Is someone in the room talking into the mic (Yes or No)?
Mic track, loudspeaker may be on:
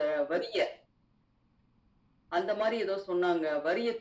No